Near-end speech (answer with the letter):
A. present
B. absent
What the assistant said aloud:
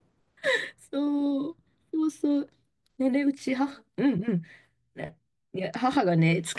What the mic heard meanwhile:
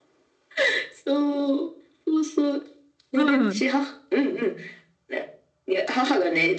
A